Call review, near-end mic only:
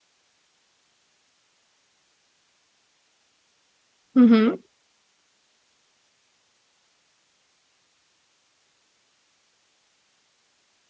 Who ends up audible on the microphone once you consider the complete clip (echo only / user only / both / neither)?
user only